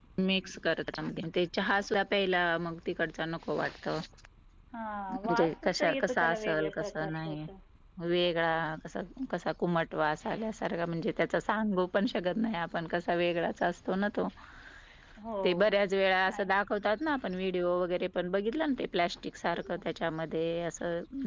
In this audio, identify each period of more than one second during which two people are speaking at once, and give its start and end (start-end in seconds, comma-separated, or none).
5.1-7.4